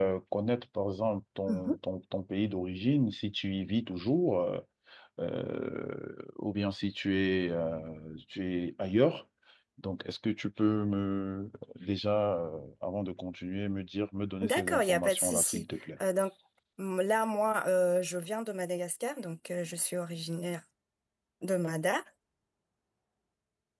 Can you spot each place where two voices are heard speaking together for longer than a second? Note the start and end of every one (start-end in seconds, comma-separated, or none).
14.4-15.9